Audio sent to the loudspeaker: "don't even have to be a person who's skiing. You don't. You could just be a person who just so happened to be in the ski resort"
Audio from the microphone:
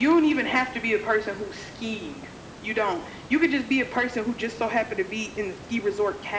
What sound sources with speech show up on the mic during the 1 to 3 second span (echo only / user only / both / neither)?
echo only